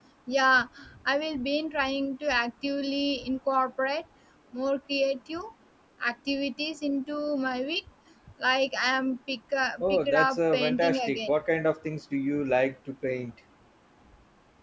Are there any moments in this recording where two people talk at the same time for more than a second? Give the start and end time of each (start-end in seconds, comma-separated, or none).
9.8-11.3